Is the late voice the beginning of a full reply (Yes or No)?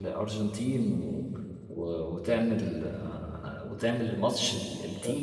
Yes